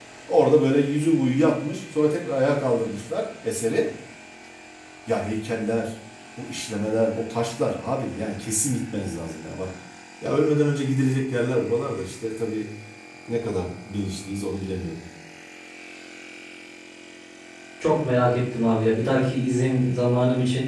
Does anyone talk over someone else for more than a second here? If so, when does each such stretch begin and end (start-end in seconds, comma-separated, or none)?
none